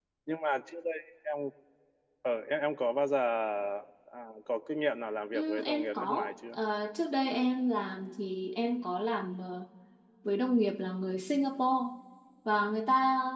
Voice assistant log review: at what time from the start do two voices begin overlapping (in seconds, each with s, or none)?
5.3 s